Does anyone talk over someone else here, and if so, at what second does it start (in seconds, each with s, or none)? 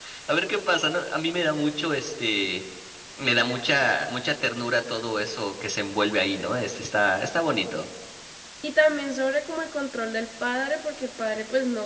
none